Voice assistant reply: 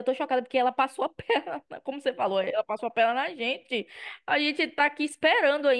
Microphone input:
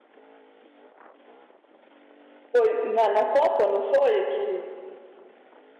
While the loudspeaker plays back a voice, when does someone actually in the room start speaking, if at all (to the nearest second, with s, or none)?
3 s